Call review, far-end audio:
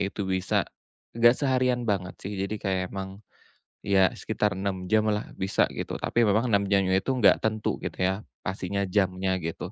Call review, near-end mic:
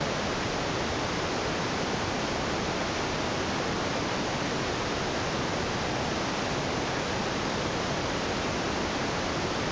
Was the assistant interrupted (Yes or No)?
No